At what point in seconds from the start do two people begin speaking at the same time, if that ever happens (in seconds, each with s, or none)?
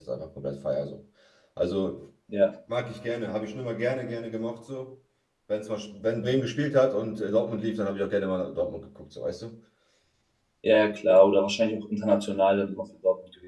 none